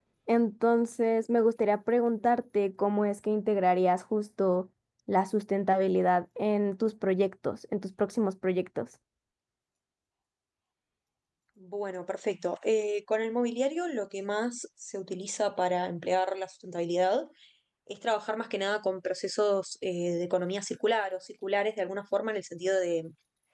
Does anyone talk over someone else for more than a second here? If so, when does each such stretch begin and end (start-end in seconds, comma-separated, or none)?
none